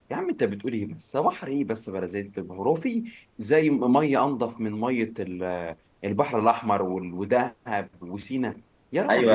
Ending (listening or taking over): taking over